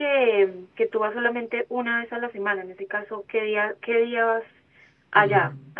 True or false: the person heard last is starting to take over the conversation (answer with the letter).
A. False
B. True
B